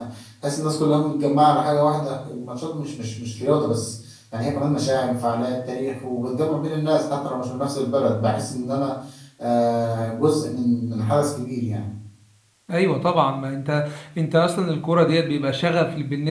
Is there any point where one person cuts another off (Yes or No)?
No